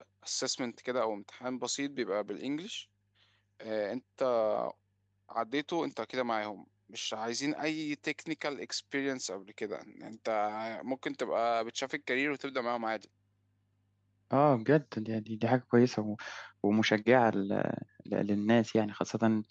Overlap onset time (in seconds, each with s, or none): none